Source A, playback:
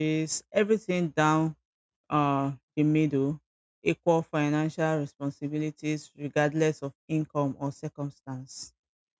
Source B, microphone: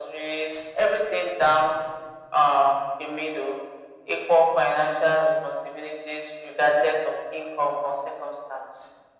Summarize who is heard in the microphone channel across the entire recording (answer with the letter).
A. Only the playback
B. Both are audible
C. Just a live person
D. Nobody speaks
A